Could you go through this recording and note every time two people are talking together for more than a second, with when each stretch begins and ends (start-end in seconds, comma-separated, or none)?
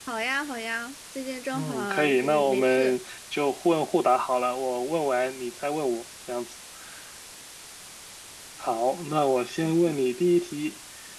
1.5-3.0